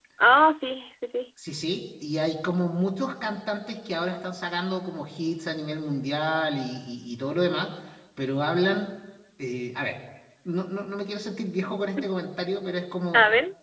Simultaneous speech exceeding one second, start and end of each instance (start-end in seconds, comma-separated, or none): none